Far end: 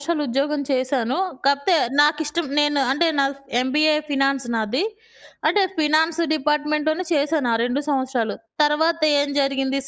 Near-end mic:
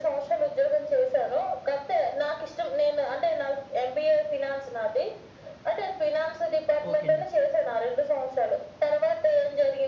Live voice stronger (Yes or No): No